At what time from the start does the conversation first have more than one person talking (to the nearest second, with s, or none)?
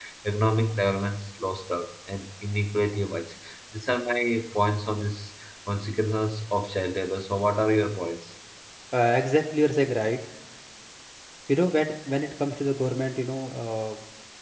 none